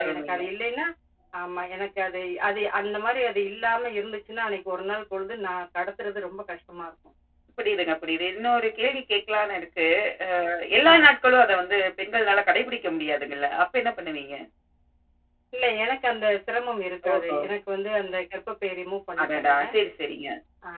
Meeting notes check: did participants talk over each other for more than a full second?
No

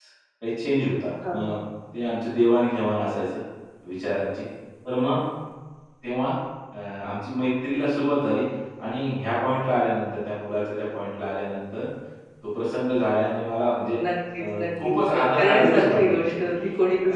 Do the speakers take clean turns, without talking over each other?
No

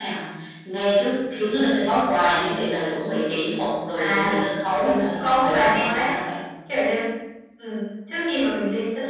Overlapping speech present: Yes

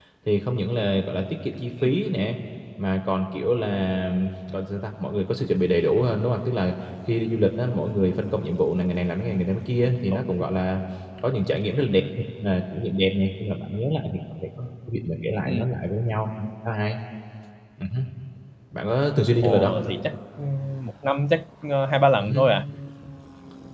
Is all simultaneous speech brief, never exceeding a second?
Yes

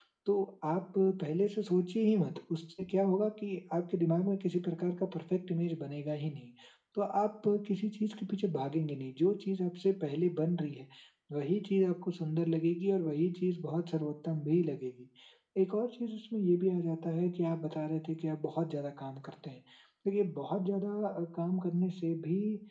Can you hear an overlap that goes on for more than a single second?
No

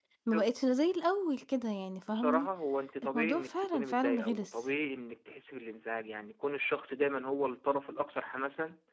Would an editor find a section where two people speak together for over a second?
Yes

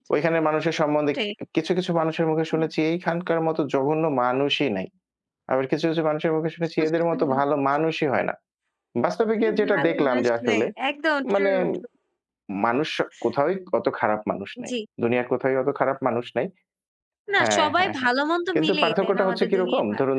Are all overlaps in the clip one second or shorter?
No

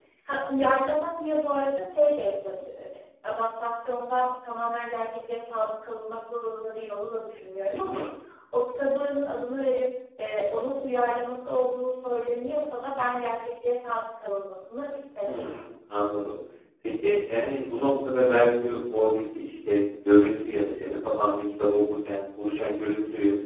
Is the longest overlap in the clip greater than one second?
No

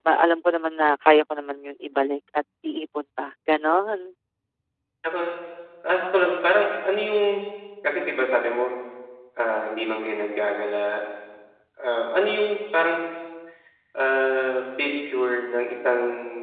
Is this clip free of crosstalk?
Yes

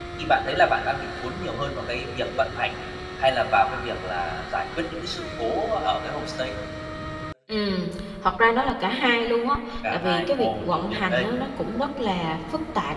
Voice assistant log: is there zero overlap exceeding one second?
No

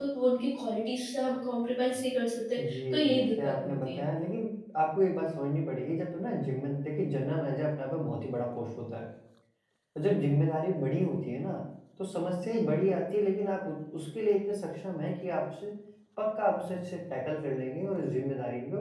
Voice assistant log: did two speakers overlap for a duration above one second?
Yes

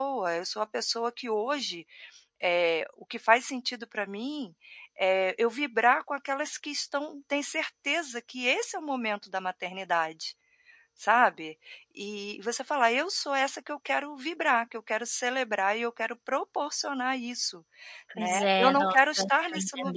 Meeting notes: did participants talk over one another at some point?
Yes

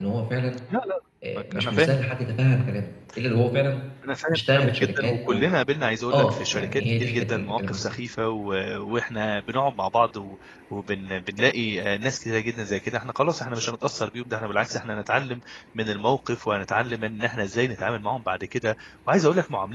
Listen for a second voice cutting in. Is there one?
Yes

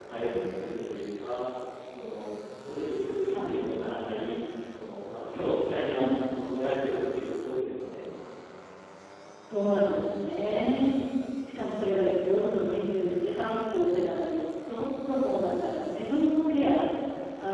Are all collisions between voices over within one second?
Yes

